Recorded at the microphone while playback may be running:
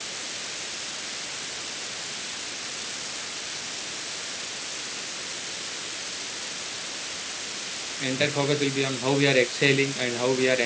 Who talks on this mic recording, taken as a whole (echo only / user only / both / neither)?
user only